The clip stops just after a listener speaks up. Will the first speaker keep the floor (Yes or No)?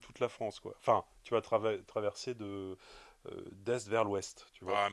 No